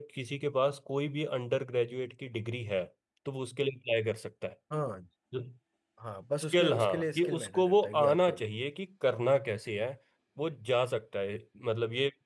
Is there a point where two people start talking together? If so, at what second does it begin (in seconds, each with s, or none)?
6.5 s